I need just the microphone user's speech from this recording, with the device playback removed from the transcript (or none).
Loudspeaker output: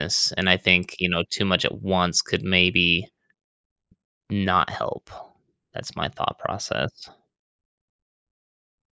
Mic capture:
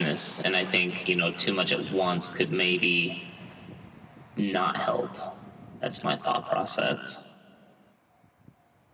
none